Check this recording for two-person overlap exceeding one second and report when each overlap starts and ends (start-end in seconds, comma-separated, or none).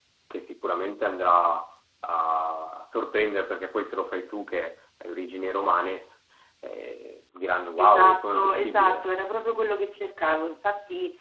7.8-9.0